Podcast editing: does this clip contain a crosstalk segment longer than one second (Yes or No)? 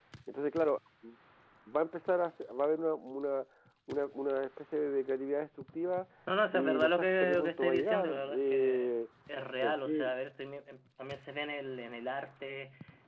Yes